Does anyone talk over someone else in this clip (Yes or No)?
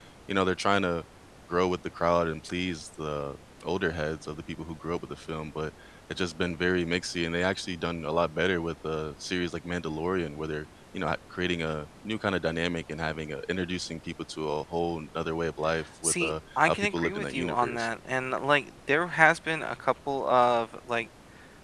Yes